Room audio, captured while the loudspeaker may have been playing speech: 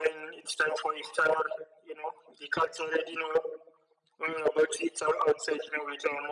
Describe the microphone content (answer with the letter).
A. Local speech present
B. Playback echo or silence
B